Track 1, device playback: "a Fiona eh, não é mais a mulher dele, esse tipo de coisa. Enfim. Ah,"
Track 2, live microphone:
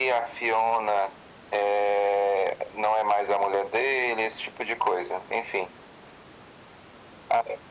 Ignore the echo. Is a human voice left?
No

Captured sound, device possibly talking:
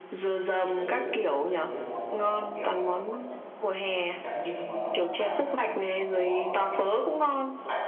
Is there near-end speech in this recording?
Yes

